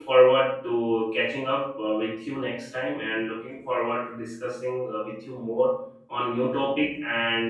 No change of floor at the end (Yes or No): Yes